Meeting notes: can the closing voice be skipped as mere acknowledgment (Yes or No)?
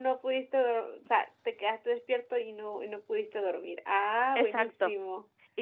No